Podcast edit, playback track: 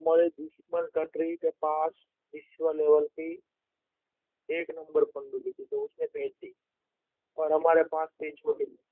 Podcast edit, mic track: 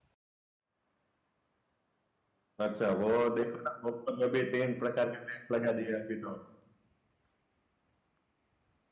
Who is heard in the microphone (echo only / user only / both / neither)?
user only